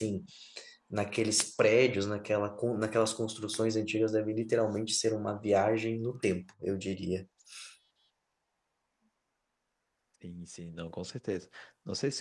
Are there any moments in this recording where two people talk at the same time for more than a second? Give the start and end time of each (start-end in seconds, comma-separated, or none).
none